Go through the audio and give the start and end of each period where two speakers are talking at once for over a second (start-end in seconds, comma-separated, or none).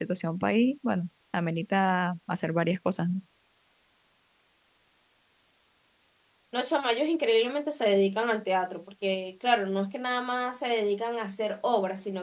none